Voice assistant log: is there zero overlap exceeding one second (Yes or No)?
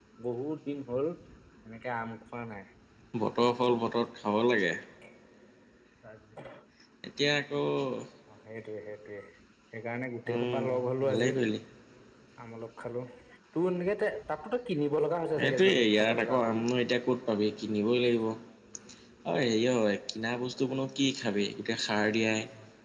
No